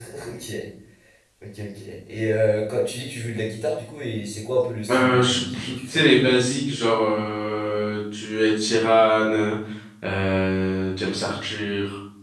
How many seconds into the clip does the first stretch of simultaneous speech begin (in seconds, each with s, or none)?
4.9 s